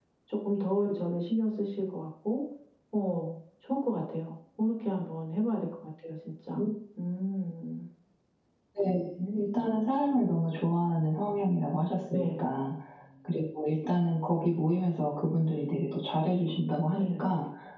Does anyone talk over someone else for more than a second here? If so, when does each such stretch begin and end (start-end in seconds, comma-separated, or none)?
none